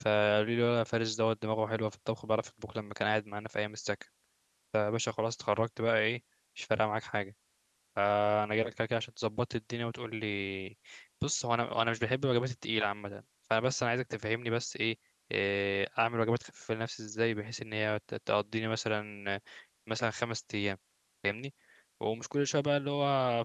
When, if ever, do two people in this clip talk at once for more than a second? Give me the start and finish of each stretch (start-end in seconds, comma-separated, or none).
none